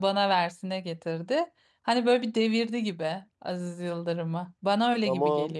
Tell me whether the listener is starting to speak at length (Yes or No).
Yes